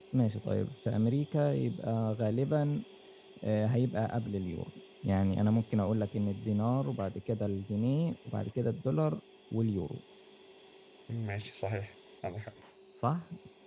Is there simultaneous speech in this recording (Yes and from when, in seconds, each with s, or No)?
No